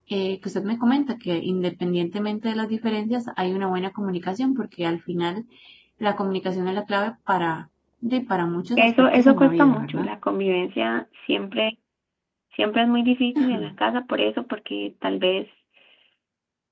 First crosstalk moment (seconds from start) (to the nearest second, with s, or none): 9 s